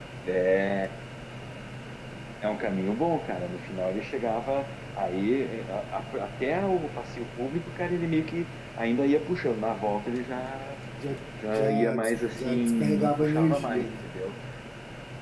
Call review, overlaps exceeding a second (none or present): present